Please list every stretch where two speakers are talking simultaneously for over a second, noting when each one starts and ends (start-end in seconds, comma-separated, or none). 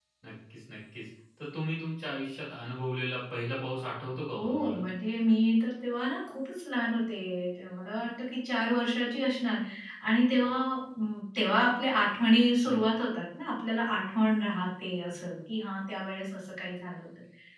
none